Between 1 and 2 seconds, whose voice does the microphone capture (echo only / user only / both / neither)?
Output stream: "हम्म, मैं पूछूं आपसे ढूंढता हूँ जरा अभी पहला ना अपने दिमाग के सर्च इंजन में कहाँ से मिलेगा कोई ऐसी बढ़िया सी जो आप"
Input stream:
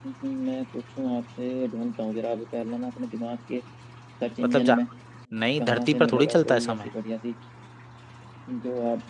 echo only